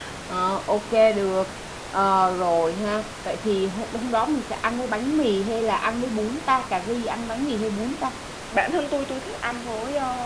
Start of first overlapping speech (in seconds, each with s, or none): none